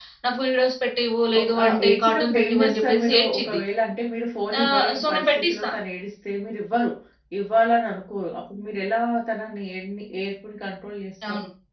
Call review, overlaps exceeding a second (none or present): present